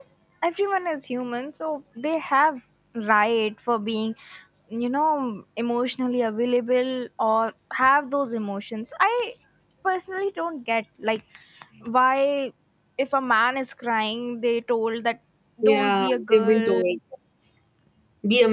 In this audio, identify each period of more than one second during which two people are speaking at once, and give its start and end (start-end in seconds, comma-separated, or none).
15.6-16.8